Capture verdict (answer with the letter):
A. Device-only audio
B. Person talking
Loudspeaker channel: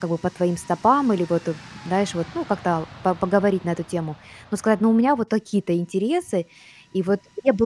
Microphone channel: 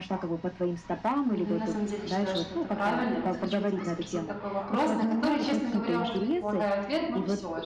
B